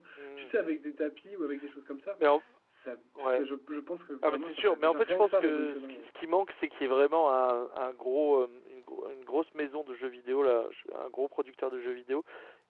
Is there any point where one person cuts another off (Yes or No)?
Yes